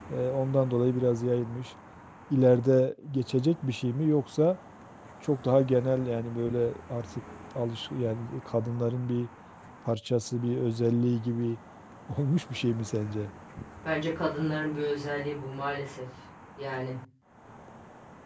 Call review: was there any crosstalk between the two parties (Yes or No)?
No